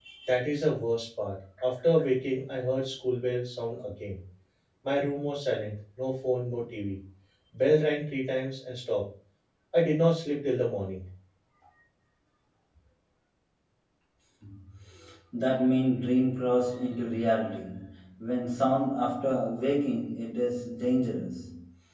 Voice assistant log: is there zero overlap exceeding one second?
Yes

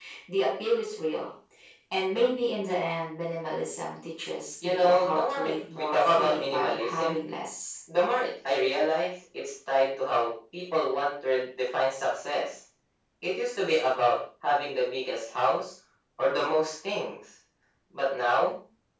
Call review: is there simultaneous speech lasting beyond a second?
Yes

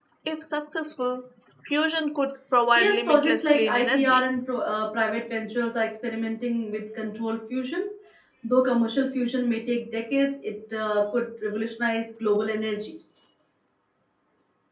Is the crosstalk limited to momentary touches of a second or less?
No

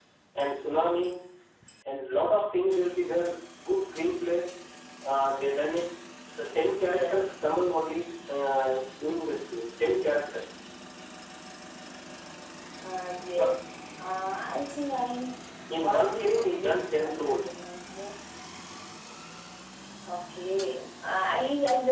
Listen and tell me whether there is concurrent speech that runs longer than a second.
Yes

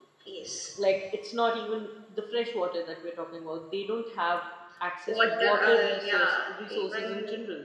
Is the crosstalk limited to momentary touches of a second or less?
No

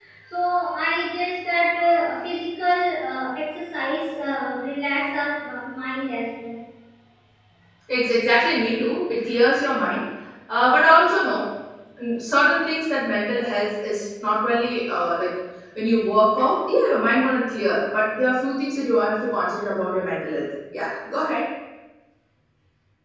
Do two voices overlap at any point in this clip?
No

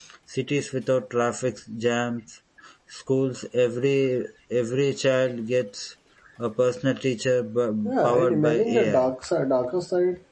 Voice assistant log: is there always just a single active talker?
No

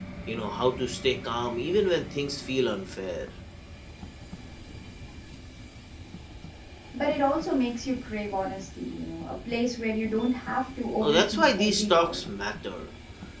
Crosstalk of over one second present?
Yes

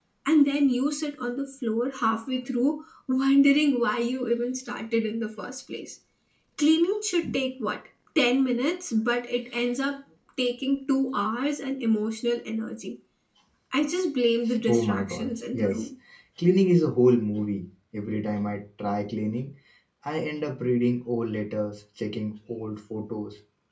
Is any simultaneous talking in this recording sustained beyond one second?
Yes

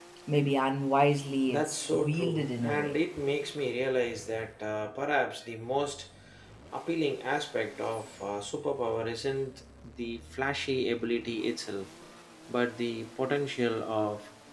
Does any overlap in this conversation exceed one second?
Yes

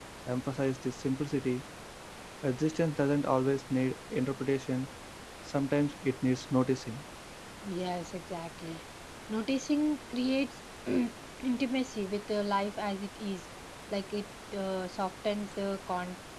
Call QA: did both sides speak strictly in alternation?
Yes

